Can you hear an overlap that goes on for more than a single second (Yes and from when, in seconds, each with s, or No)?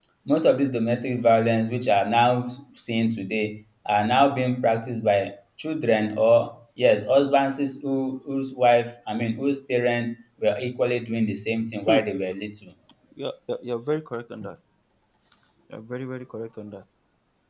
No